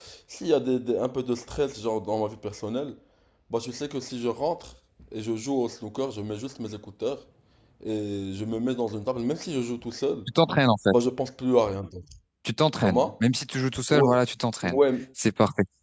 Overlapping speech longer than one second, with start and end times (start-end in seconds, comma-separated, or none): none